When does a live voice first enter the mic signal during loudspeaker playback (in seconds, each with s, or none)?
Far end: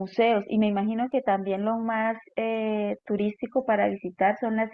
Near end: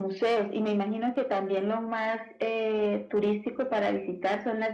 none